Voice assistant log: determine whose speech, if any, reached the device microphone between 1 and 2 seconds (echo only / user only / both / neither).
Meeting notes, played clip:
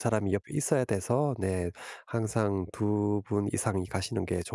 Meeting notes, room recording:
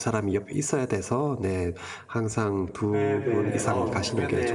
echo only